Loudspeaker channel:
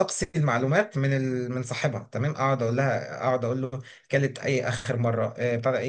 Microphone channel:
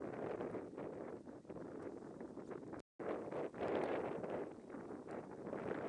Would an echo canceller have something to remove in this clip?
No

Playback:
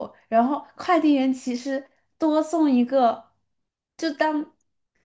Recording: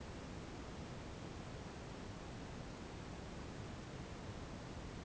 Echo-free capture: Yes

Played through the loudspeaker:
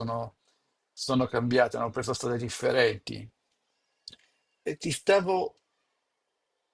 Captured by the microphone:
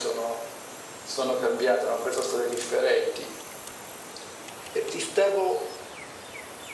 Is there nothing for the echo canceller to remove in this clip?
No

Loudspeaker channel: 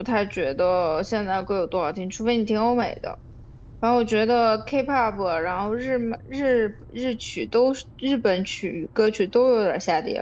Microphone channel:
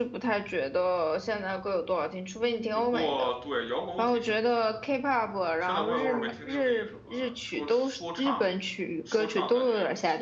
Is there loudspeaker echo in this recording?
Yes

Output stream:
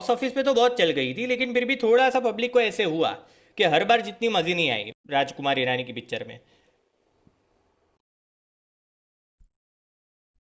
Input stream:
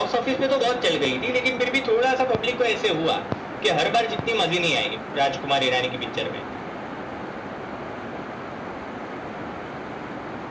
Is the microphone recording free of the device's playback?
No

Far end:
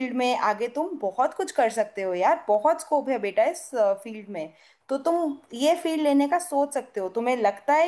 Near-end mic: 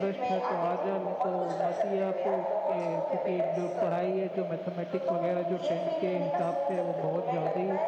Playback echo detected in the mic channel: Yes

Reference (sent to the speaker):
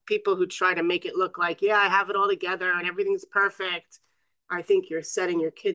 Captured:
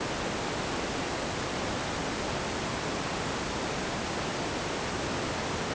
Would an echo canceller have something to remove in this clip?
No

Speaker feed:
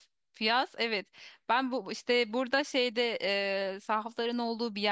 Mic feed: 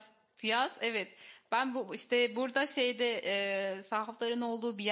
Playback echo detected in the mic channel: Yes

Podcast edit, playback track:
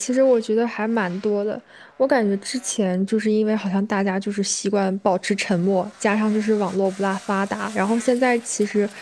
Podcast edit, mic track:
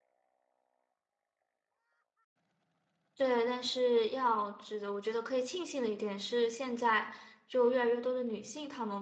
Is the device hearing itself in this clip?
No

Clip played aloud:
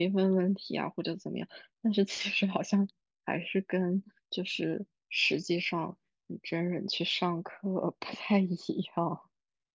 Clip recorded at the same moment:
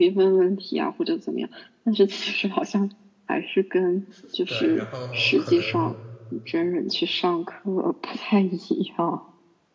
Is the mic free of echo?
No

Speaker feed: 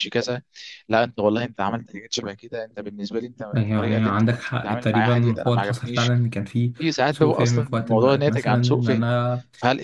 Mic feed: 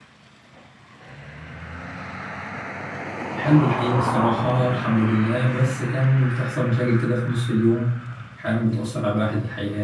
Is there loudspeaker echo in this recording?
No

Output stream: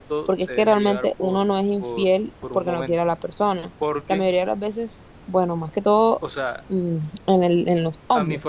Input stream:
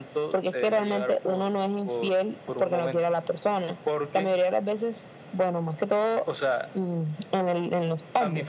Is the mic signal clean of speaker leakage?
No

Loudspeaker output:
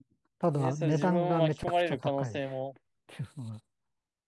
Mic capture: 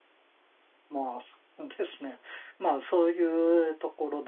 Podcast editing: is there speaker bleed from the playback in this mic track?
No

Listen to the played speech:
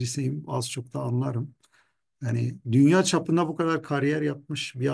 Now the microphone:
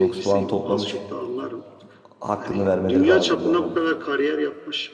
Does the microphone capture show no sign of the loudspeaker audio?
No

